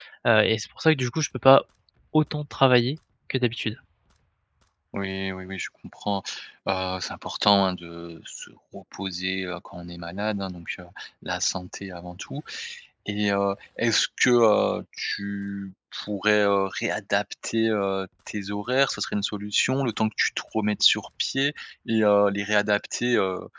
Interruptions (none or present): none